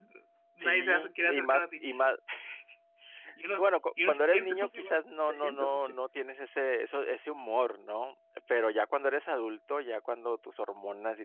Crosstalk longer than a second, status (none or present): present